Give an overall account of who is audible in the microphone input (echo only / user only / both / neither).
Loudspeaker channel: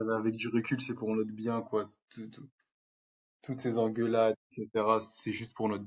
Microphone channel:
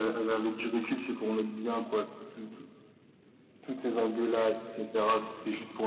echo only